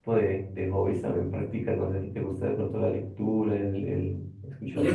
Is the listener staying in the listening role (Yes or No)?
No